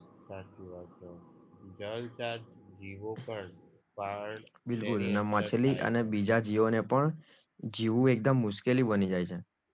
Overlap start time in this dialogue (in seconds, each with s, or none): 4.8 s